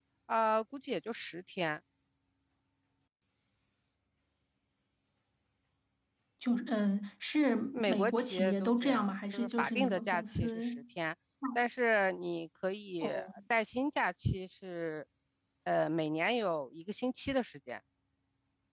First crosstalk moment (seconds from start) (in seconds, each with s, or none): 7.7 s